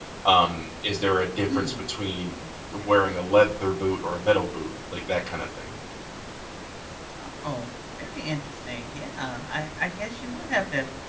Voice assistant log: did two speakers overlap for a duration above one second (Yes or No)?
No